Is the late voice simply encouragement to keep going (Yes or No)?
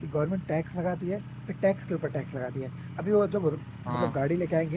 Yes